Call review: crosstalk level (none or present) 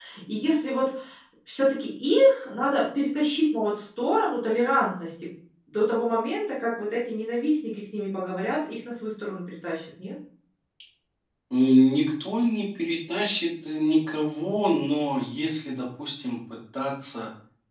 none